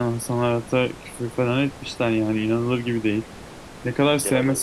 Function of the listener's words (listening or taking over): listening